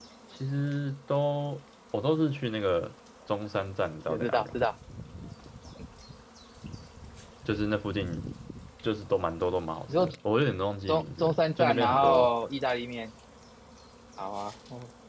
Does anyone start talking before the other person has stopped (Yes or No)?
Yes